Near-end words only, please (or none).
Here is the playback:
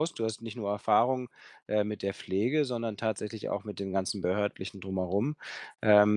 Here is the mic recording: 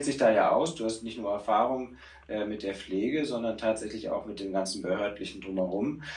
none